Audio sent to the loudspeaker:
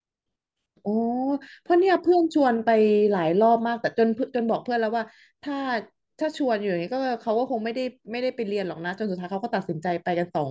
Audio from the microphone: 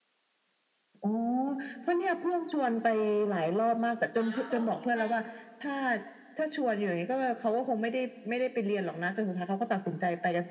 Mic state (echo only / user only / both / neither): both